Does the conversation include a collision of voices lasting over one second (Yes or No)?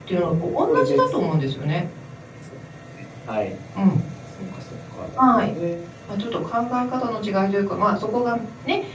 No